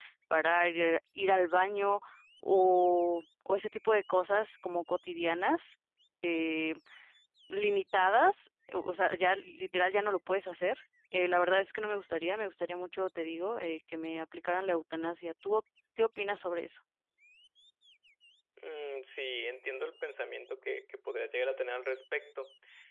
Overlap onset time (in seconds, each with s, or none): none